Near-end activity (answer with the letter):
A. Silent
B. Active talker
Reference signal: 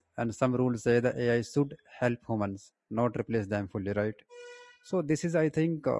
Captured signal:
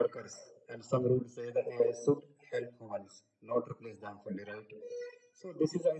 A